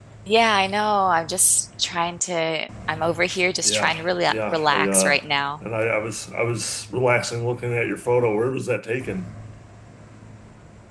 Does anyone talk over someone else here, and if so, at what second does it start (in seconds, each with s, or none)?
3.6 s